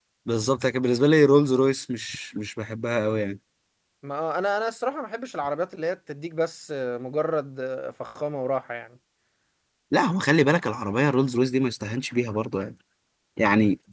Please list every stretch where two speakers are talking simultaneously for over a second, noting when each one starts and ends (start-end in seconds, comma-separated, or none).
none